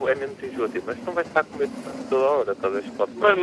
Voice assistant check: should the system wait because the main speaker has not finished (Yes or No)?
No